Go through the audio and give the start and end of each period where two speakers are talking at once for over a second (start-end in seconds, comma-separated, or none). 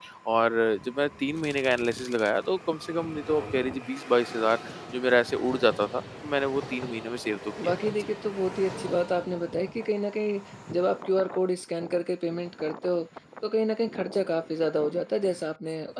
none